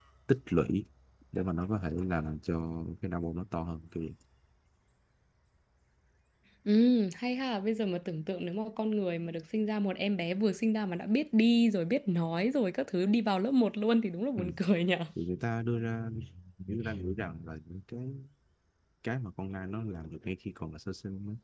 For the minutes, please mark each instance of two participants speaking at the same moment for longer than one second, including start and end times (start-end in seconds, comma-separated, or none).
none